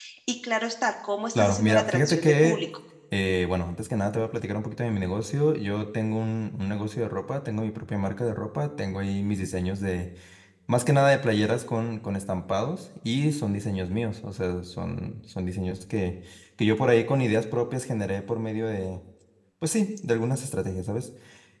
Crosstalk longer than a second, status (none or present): present